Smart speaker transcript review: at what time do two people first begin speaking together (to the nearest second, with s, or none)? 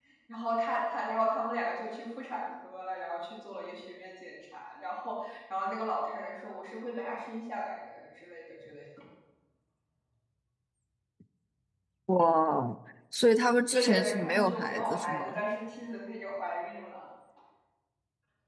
14 s